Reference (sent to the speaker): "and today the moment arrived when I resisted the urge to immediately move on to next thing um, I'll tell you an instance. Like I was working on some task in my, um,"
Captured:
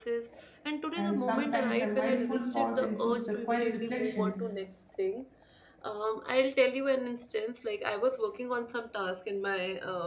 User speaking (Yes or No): Yes